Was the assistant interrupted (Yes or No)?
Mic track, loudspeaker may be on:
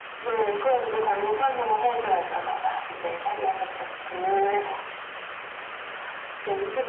No